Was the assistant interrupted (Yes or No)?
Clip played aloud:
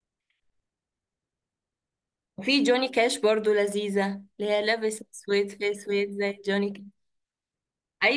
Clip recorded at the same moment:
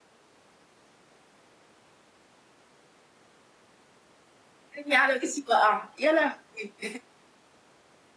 Yes